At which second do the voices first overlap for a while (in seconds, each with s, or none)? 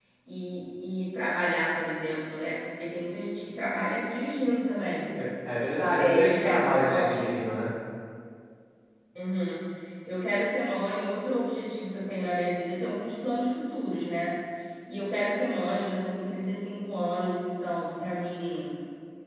6.0 s